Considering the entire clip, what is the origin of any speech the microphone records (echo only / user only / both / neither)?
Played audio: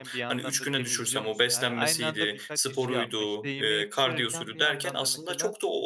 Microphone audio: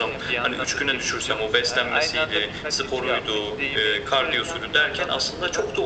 echo only